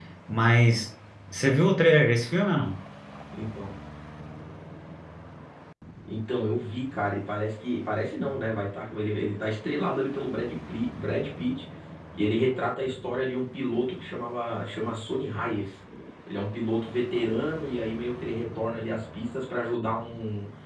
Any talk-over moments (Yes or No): No